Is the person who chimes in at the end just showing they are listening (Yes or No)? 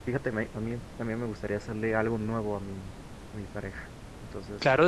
No